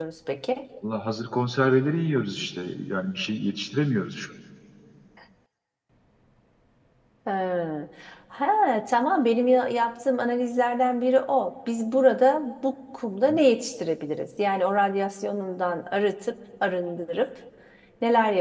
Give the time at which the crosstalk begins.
none

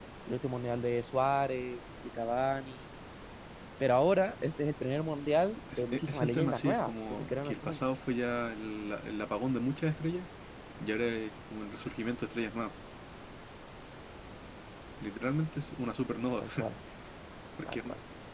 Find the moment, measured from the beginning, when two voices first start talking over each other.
5.8 s

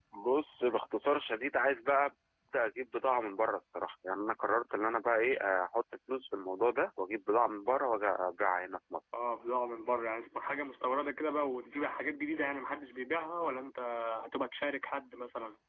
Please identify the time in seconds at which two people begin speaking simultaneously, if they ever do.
none

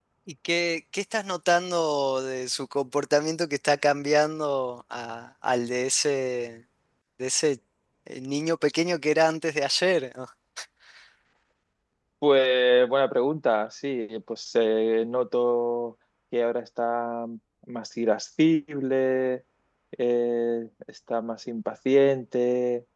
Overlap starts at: none

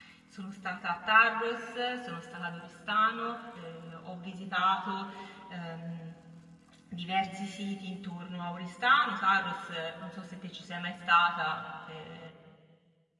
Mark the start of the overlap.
none

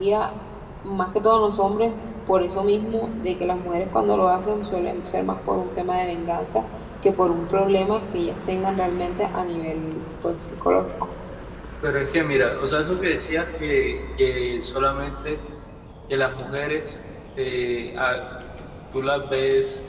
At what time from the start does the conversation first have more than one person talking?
none

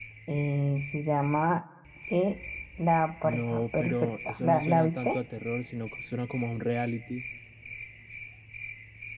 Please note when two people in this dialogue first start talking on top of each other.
3.2 s

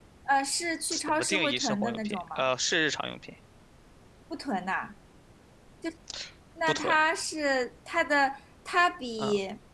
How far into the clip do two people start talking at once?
0.9 s

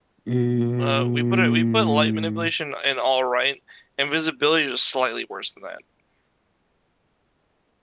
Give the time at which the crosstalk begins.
0.8 s

